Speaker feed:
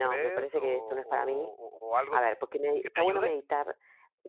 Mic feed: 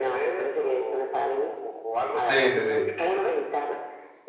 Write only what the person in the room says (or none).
Sí, sí, sí.